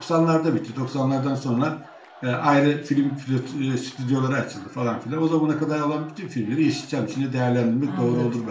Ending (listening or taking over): taking over